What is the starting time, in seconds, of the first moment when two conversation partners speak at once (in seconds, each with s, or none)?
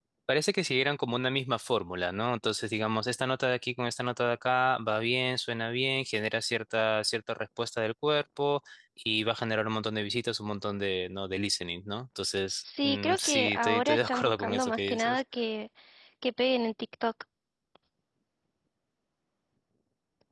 12.6 s